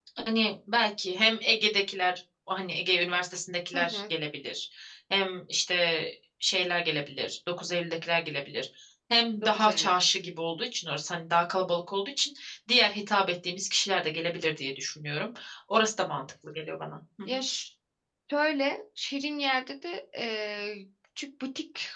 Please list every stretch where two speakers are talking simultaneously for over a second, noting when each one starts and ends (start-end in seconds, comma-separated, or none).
none